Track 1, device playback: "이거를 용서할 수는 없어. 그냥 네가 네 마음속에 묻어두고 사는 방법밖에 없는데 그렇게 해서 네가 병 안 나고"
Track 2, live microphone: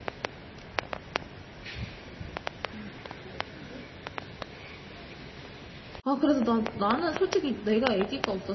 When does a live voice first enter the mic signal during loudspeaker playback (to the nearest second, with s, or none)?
6 s